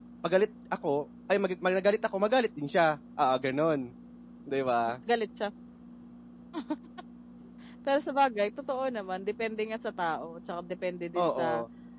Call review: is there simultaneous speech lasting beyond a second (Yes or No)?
No